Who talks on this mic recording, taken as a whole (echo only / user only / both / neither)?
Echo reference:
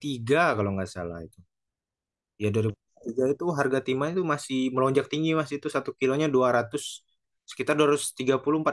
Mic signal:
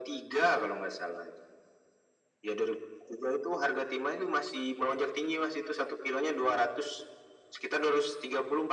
echo only